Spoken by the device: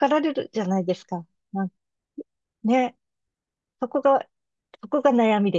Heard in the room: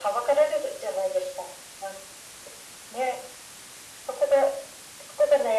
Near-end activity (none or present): none